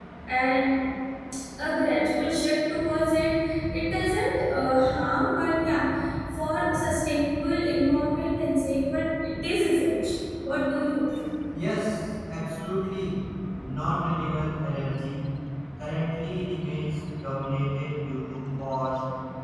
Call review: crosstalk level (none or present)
none